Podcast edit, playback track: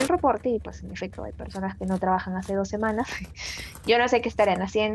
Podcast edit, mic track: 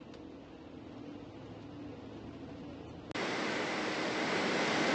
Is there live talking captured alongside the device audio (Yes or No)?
No